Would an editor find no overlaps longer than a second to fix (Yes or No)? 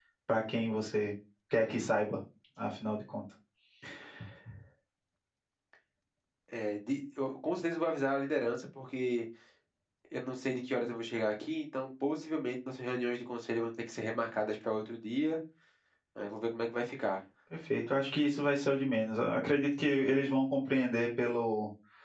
Yes